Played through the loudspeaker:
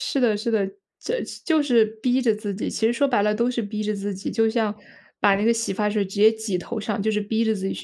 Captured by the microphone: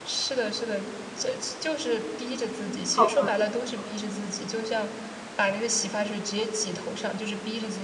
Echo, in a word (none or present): present